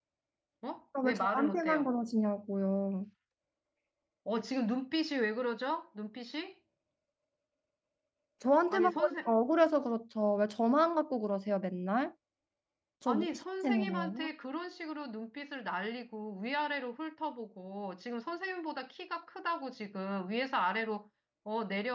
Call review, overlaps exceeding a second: present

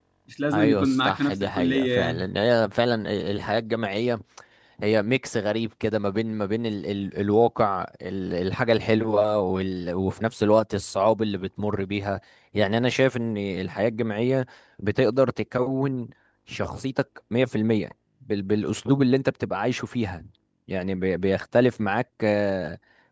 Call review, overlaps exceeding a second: present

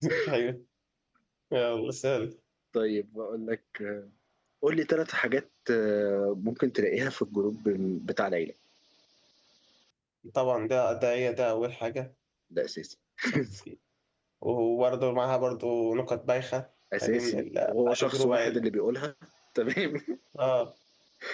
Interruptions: present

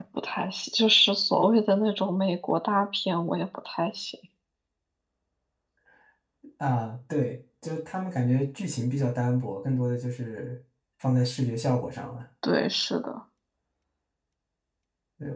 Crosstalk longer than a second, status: none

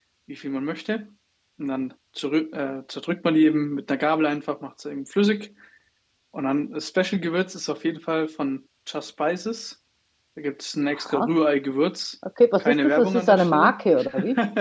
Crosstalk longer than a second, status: present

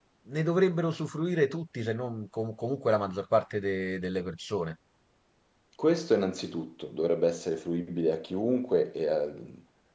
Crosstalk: none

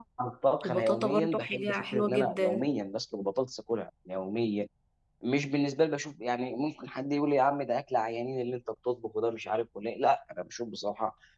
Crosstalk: present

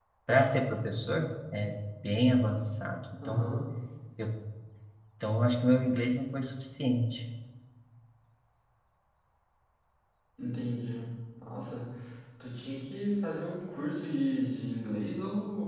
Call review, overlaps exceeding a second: none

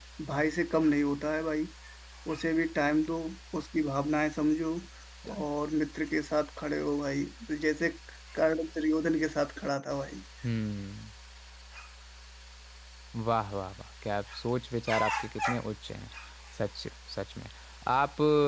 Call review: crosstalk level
none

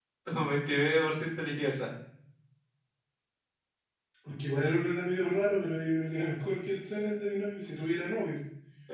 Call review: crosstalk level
none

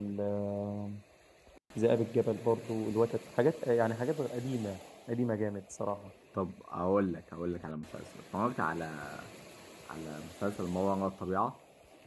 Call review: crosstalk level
none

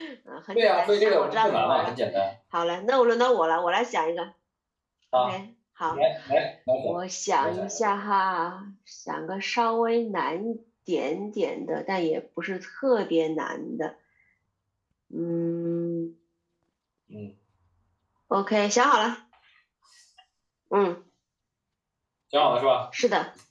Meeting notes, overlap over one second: present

